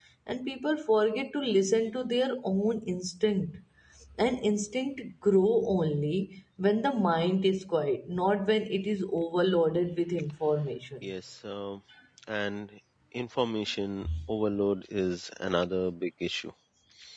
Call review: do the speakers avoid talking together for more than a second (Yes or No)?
Yes